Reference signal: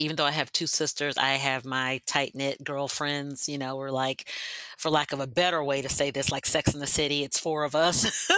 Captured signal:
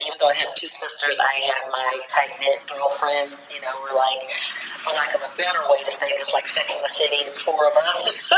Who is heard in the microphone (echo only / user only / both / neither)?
echo only